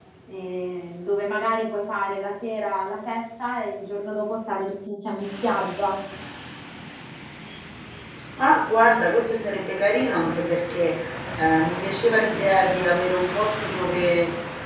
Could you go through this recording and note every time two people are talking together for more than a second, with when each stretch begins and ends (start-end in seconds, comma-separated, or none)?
none